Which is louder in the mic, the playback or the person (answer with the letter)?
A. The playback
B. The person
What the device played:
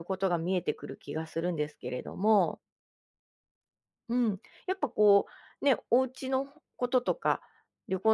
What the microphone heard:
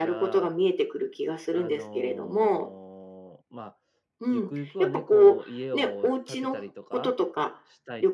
A